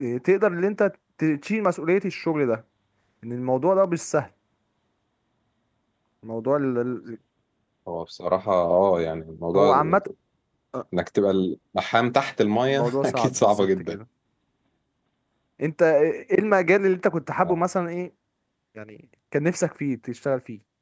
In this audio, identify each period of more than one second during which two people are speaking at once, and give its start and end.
12.7-13.9

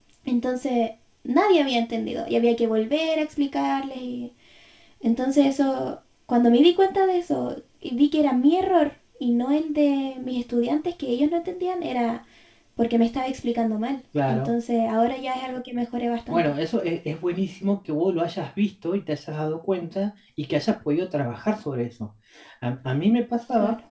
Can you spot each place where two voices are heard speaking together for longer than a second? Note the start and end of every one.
none

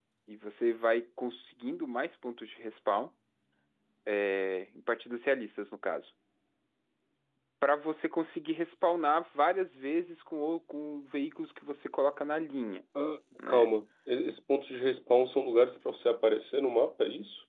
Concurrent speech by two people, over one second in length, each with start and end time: none

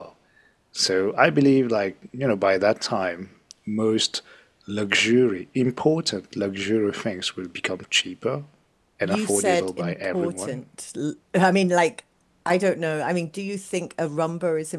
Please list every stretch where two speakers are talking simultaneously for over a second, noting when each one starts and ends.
9.0-10.6

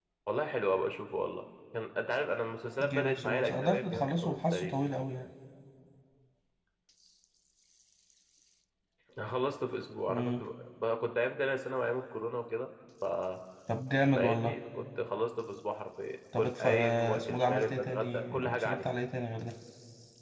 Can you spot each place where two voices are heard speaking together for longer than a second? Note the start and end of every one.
2.8-4.8, 16.4-18.9

